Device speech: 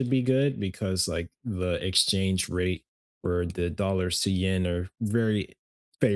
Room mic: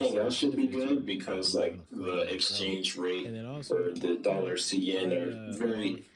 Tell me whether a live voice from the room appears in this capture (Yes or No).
Yes